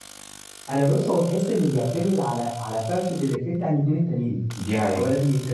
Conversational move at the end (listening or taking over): listening